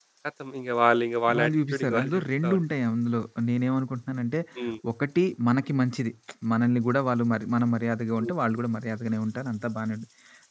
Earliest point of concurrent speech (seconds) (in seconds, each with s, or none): 1.3 s